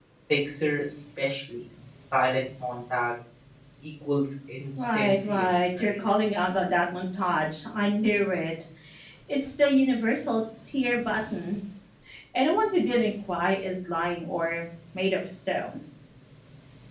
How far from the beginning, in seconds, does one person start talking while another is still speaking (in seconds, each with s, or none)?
4.8 s